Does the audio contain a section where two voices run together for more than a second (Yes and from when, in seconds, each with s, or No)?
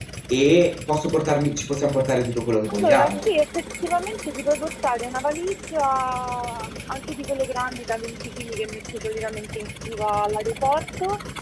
No